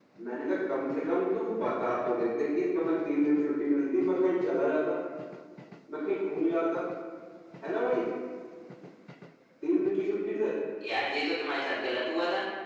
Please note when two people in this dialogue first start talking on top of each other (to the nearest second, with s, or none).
none